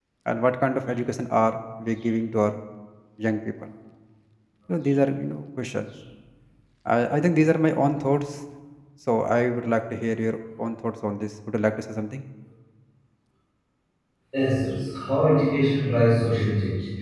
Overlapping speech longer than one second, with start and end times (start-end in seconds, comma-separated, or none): none